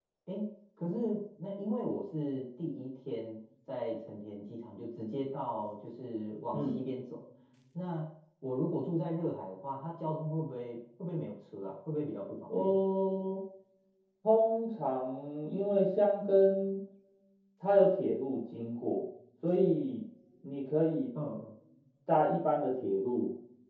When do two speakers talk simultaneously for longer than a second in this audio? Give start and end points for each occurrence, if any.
none

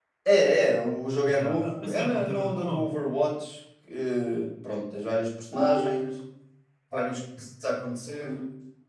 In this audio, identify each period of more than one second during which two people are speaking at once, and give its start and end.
1.3-2.9

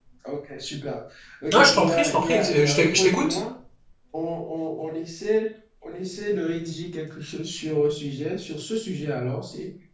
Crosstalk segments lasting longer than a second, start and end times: 1.5-3.4

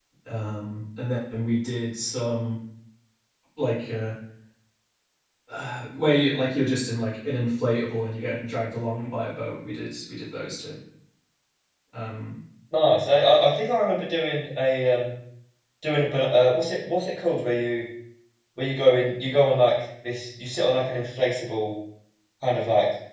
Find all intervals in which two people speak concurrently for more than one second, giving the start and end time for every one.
none

